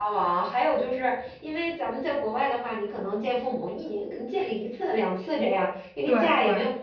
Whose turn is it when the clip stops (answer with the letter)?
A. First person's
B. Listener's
A